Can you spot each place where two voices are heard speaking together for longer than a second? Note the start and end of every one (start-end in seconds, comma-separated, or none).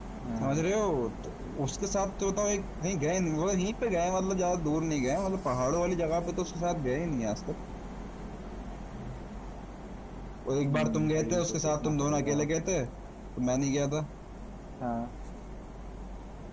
10.7-12.3